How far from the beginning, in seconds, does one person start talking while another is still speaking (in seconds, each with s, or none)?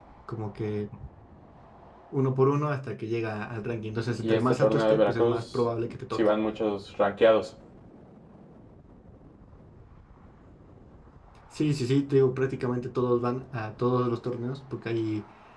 4.1 s